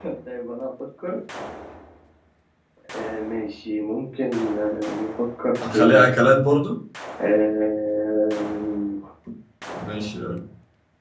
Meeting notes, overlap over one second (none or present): none